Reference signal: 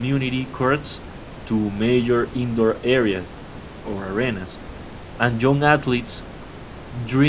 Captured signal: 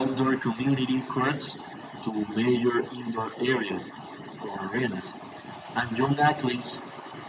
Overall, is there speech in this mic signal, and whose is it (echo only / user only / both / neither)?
echo only